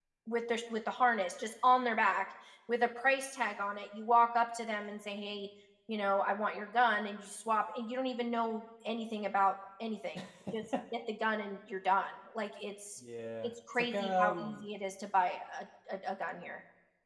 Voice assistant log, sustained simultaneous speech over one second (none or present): present